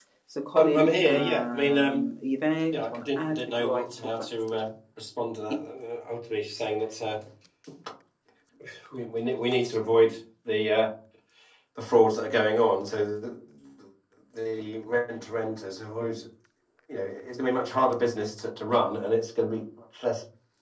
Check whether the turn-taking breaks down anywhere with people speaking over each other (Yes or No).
Yes